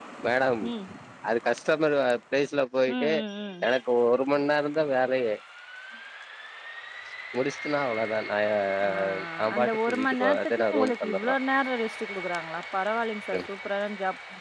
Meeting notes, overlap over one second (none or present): present